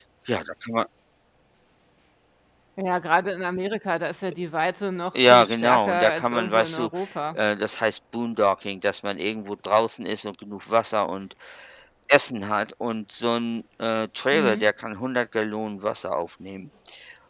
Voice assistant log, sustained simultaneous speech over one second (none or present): present